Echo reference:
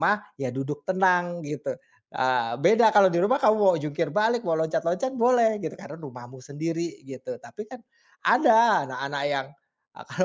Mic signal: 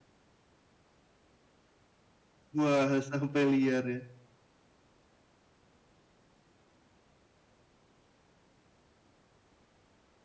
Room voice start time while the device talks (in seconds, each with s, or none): 2.6 s